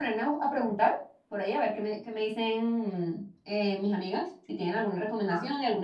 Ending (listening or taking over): listening